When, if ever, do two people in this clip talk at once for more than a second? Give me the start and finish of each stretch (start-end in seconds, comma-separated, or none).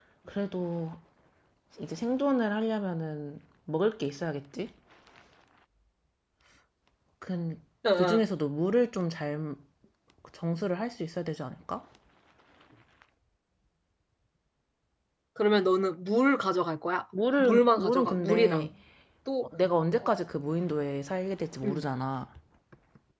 17.4-18.7